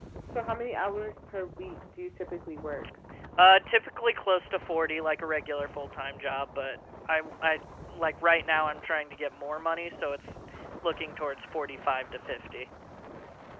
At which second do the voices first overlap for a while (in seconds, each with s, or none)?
none